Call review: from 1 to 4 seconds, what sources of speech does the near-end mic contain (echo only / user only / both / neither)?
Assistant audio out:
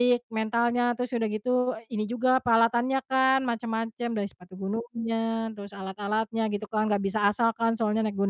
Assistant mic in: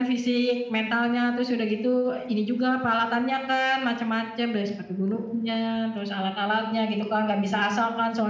echo only